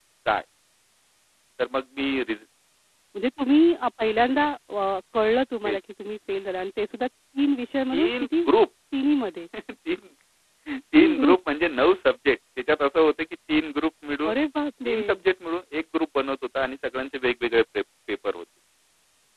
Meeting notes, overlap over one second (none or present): none